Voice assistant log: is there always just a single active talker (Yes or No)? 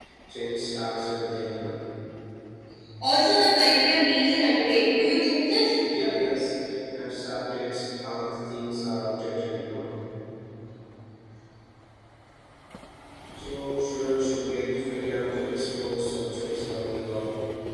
Yes